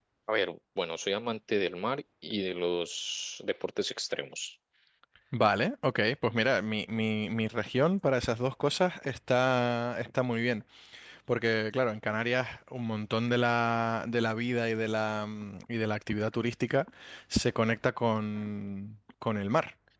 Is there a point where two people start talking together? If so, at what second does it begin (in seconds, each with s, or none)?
none